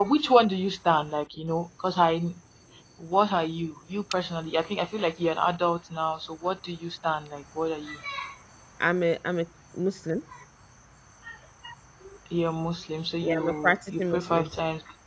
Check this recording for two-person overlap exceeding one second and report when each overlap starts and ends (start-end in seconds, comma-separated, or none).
13.2-14.5